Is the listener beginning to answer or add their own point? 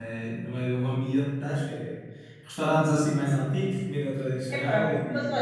Yes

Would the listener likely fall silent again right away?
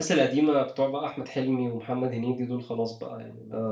No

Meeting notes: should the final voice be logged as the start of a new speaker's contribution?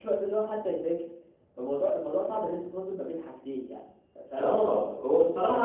Yes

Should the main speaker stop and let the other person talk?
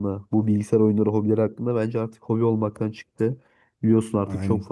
No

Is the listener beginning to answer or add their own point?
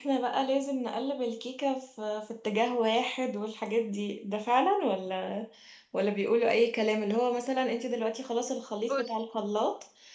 No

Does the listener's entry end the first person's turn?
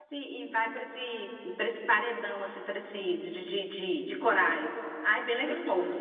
Yes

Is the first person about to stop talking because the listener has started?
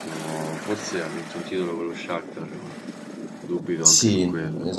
Yes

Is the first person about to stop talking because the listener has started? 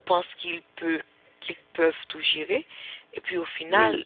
No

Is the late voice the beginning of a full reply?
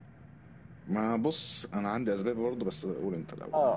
Yes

